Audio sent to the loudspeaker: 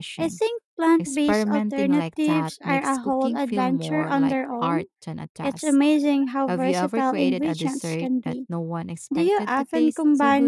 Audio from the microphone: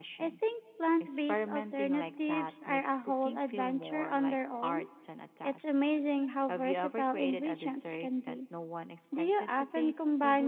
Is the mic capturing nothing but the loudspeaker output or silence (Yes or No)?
Yes